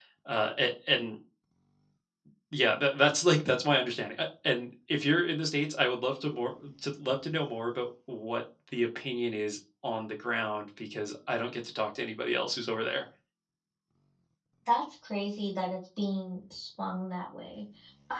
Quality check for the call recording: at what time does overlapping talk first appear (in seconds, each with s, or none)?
none